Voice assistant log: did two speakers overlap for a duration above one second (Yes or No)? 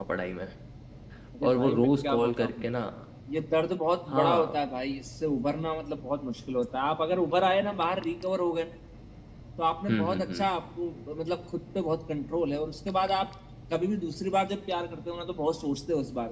Yes